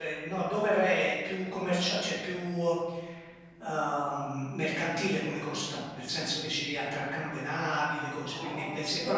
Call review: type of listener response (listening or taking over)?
taking over